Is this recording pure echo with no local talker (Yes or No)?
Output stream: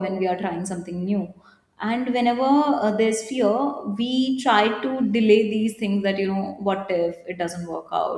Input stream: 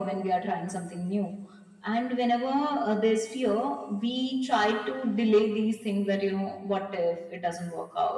Yes